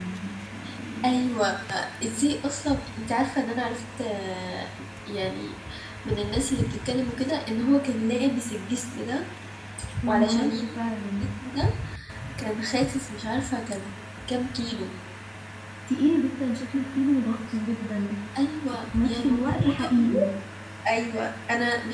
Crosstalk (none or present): present